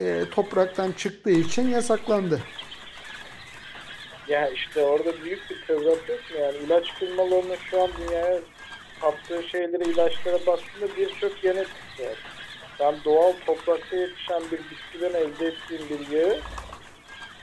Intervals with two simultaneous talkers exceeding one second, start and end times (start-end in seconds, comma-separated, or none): none